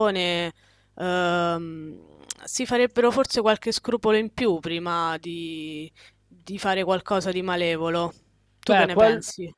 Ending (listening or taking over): taking over